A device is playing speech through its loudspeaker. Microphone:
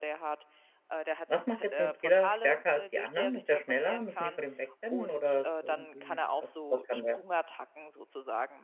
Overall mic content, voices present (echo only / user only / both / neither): both